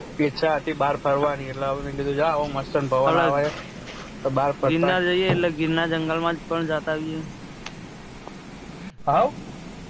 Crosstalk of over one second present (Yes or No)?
No